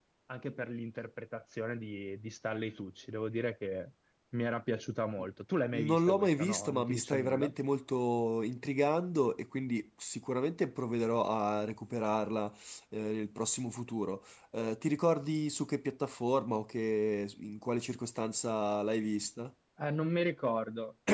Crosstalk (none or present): present